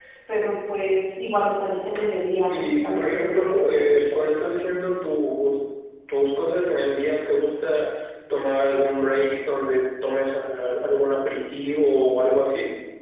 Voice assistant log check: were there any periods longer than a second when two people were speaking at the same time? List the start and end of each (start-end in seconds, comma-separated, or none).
2.5-4.0